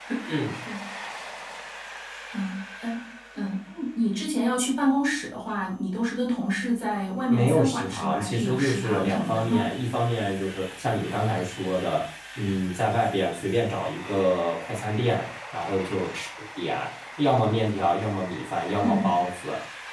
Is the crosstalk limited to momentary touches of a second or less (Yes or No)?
No